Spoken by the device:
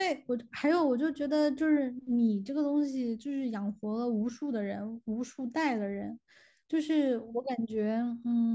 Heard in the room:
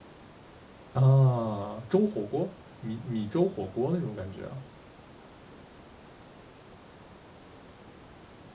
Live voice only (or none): 啊，粥火锅，米米粥火锅那种感觉啊。